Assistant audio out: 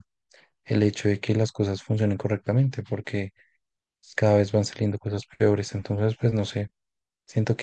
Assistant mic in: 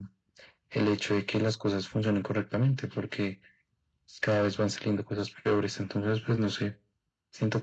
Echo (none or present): present